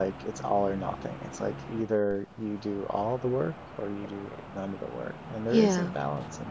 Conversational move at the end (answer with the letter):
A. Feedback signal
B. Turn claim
A